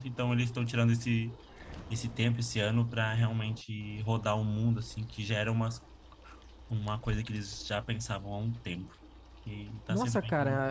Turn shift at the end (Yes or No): Yes